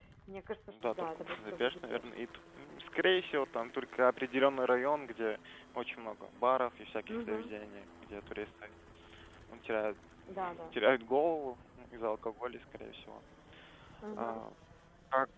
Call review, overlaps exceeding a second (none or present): present